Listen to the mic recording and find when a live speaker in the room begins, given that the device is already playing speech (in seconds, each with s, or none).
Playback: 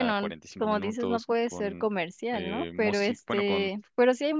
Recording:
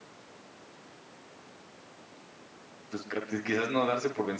2.9 s